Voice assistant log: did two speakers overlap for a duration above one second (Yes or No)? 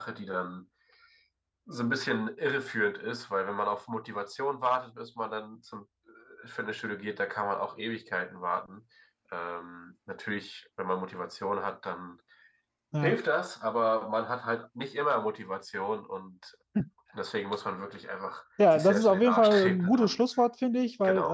Yes